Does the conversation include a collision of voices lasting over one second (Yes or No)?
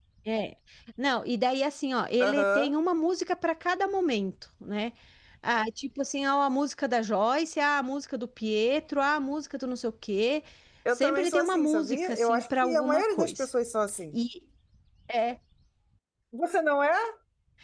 Yes